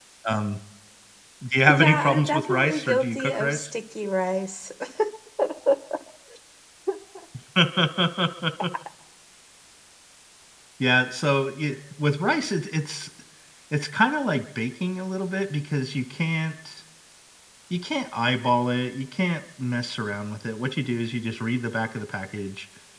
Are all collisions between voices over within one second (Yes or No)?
No